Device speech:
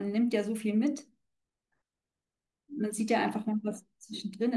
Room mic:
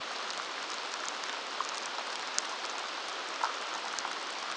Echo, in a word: none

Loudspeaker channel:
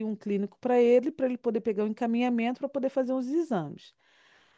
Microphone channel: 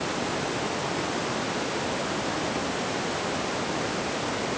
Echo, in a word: none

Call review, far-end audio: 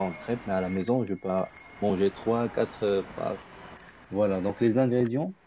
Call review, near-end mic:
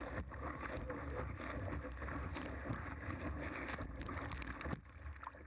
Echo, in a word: none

